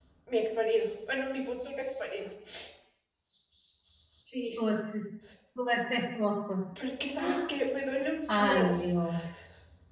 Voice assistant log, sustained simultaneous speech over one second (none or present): none